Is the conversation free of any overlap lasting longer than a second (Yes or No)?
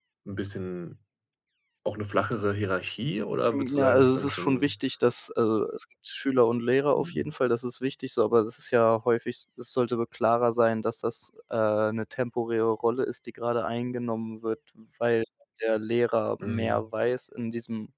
No